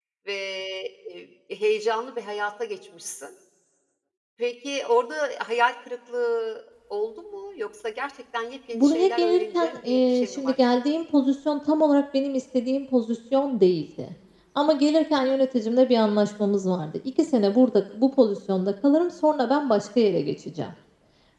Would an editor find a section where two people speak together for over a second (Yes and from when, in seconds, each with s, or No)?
Yes, from 8.7 s